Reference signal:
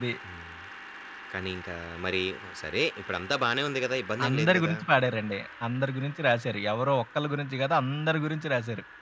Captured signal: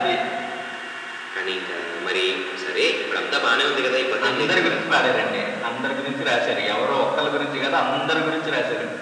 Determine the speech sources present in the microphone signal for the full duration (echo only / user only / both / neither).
echo only